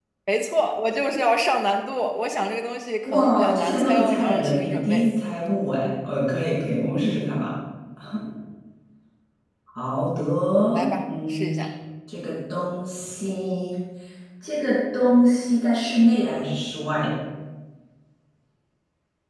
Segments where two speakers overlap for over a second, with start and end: 3.0-5.0

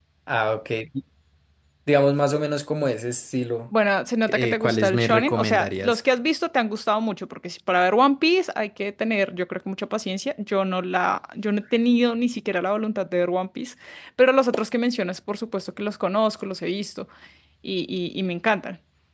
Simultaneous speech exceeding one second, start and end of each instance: 4.3-6.0

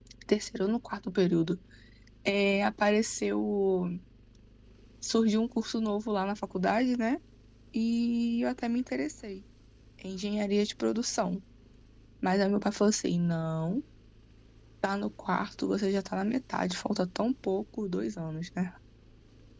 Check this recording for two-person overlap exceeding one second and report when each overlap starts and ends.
none

